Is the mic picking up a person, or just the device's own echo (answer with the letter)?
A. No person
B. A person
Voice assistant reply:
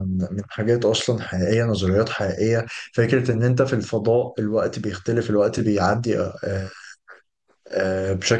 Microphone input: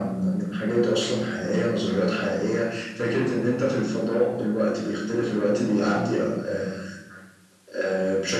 A